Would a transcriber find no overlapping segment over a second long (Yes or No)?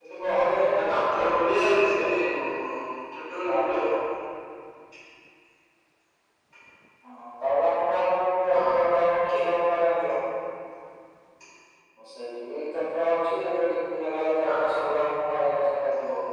No